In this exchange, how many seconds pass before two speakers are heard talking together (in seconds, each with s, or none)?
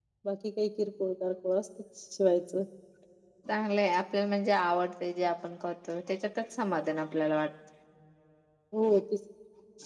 none